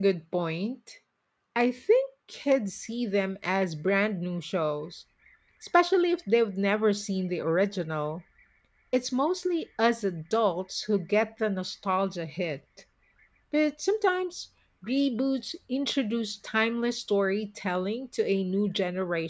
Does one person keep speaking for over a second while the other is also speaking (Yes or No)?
No